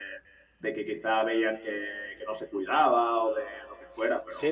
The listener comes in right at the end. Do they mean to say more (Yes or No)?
Yes